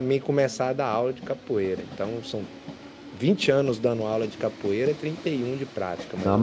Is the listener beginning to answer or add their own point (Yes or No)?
Yes